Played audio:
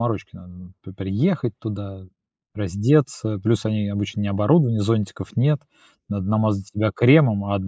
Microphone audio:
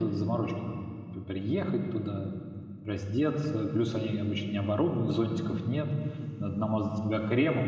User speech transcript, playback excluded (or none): none